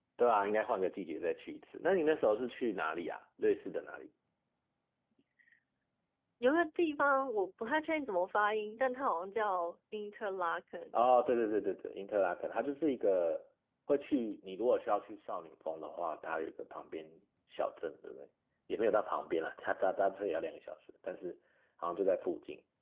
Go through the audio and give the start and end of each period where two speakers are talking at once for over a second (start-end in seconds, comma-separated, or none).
none